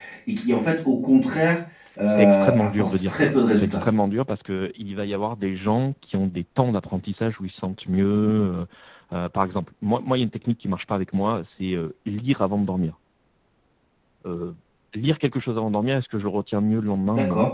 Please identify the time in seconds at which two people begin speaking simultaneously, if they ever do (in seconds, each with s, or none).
2.1 s